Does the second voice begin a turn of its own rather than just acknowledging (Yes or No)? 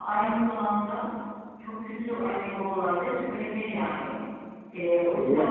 No